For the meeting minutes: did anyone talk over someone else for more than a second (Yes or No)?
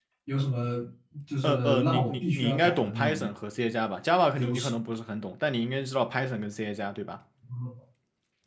Yes